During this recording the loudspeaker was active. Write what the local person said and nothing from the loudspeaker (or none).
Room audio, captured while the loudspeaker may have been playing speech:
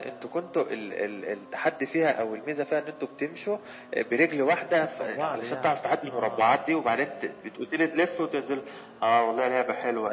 مسكتوا في بعض يعني، آه،